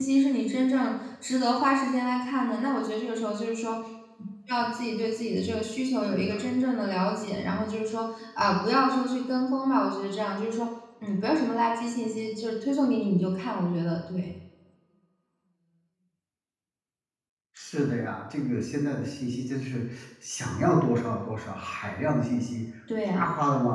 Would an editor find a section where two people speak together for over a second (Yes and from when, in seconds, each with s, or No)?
No